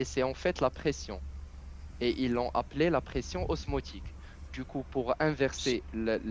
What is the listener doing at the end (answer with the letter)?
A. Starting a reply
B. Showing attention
B